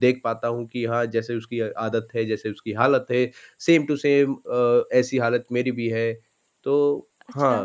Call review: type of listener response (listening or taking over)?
taking over